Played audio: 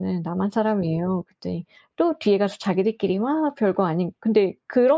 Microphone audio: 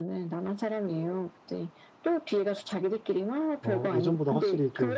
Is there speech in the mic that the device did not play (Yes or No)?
Yes